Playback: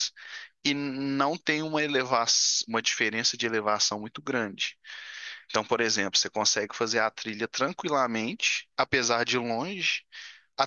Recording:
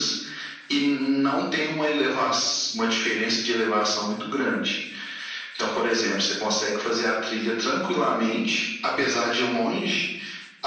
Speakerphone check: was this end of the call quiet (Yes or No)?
Yes